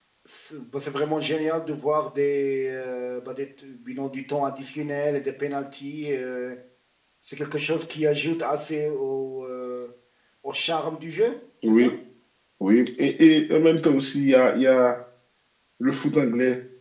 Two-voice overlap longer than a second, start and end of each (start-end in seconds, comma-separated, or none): none